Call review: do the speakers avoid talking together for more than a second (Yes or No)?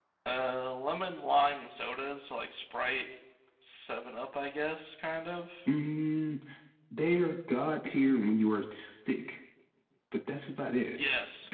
Yes